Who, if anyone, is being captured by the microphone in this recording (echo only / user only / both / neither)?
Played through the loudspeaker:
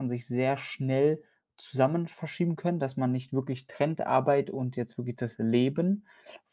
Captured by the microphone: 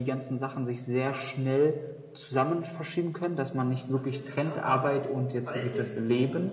both